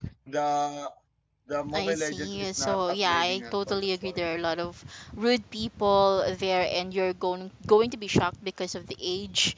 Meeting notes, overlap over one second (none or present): present